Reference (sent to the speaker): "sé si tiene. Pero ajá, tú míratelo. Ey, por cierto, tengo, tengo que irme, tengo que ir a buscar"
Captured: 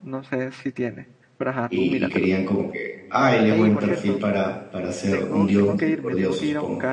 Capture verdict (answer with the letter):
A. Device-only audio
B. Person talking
B